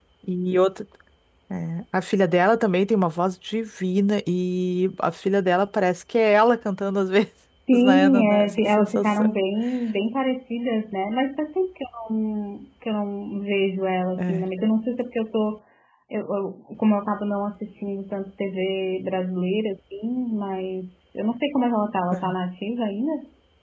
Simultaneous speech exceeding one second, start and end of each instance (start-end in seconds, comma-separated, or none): 7.7-9.4